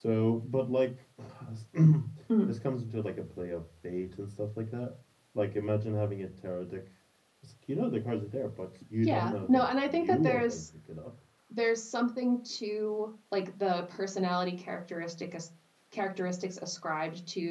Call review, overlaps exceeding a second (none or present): present